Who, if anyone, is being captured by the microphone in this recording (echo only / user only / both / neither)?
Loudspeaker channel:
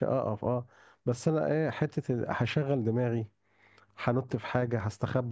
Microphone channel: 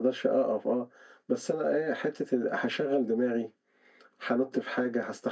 echo only